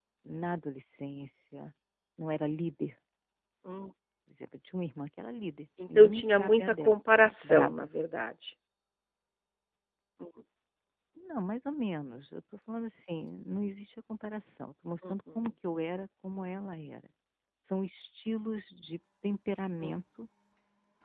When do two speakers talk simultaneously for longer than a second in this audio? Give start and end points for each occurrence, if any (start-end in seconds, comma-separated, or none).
6.0-7.9